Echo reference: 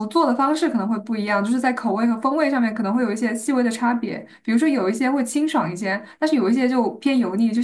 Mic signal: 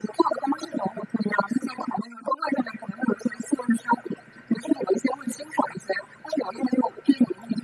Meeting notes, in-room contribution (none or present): none